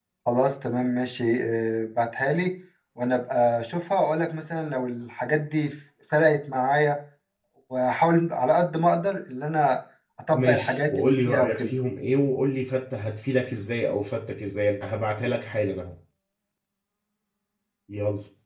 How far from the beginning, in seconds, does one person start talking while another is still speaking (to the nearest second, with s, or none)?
10 s